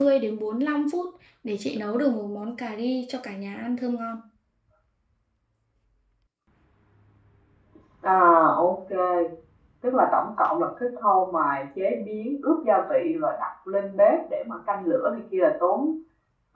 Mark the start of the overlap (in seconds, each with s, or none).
none